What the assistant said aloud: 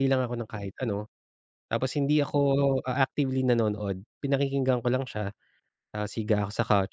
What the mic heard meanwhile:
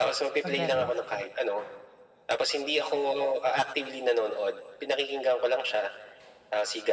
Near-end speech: present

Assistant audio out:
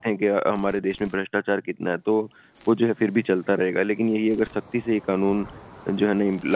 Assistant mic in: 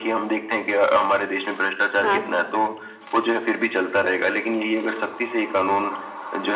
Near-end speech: present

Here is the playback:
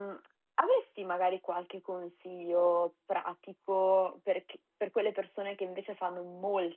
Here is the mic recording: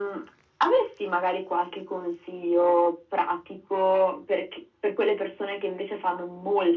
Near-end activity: none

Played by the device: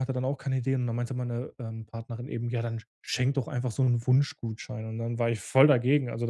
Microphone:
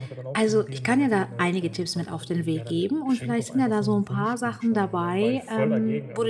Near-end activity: present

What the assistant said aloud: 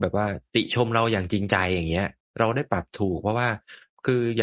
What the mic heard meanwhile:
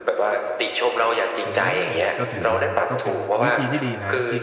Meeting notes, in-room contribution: present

